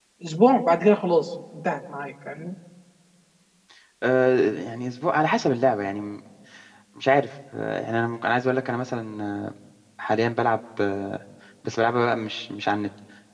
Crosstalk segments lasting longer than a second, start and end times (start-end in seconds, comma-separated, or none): none